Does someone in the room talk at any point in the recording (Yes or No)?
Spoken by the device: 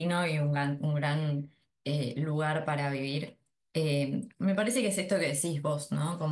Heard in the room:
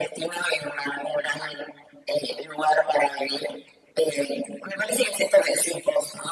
No